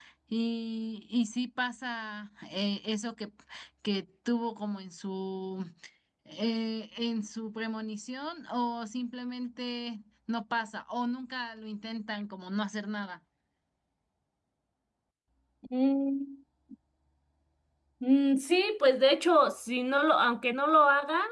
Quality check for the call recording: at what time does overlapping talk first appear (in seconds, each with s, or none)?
none